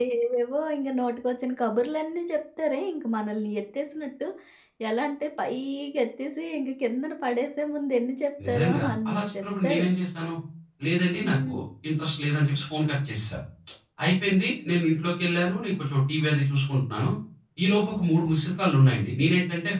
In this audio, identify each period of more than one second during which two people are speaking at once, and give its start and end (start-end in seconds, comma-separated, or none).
8.5-9.8